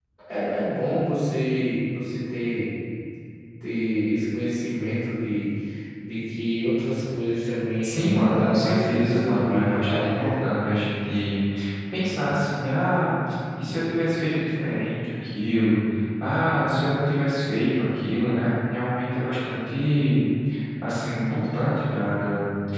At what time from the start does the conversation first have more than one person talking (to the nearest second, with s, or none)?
8 s